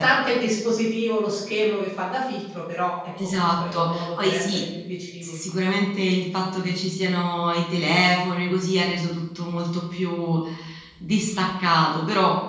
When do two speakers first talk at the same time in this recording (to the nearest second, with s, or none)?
3 s